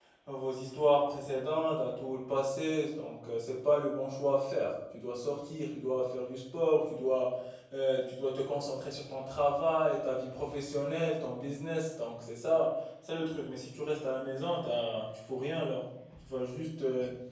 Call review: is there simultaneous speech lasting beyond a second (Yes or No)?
No